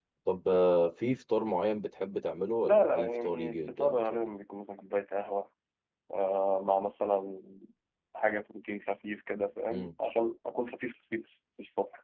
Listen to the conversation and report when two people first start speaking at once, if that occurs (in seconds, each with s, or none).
2.6 s